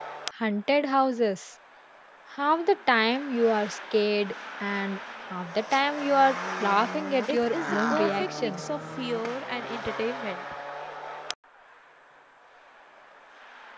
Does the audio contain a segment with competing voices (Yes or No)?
Yes